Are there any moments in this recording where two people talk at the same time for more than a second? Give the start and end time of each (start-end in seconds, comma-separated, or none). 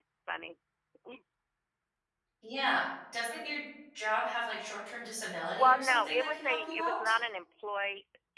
5.5-7.0